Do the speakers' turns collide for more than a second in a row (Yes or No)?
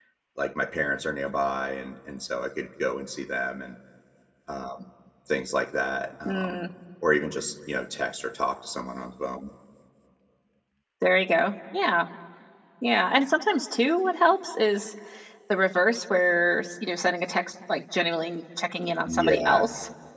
No